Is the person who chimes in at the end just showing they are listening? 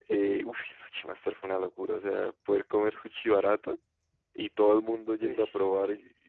Yes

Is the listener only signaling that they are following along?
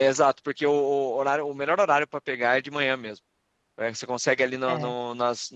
Yes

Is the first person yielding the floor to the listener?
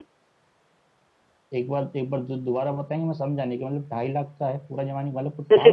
Yes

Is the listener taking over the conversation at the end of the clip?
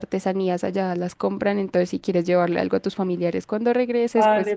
Yes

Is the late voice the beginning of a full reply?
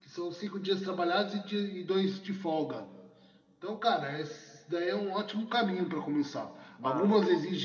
No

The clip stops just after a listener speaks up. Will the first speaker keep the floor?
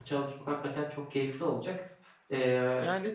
No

